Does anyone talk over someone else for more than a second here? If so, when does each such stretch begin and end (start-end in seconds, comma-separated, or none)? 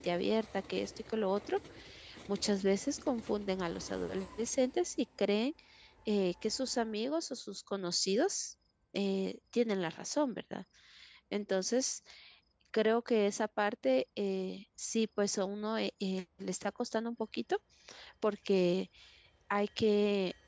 none